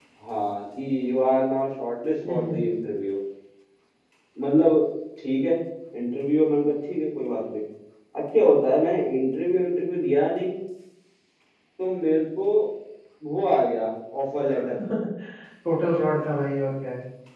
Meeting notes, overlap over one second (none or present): none